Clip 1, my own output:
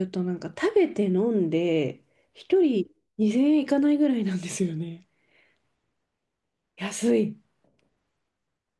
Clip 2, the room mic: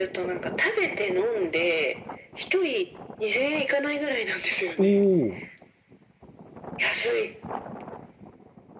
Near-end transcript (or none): おー。